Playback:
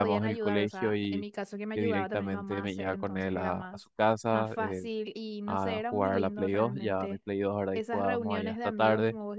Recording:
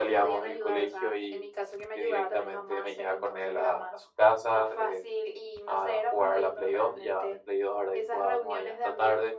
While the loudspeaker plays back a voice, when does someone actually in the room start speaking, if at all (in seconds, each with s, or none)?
none